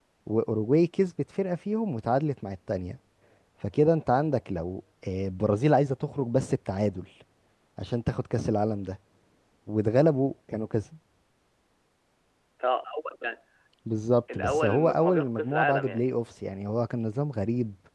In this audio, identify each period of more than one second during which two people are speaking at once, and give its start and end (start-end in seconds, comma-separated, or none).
14.3-16.1